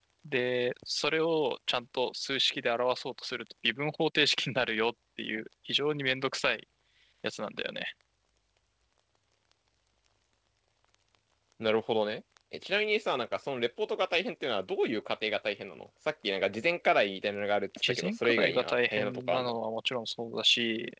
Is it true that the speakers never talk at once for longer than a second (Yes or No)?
No